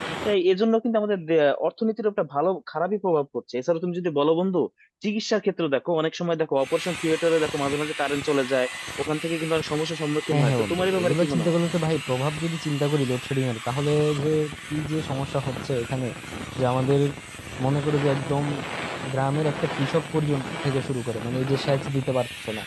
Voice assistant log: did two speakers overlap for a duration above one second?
Yes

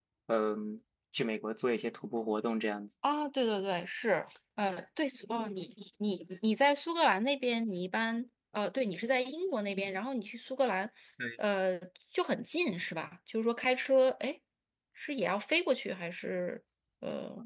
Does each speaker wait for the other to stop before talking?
Yes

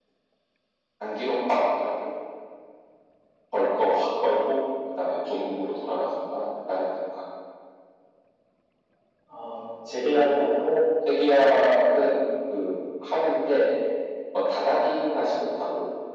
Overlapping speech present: No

